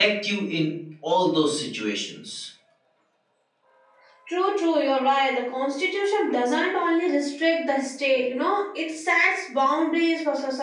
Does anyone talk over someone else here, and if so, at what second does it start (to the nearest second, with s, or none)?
none